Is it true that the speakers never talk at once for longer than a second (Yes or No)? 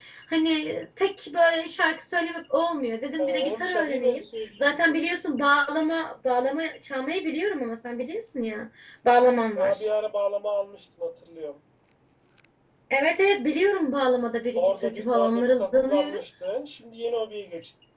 No